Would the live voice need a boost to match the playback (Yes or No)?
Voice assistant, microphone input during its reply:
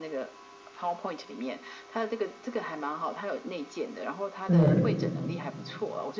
No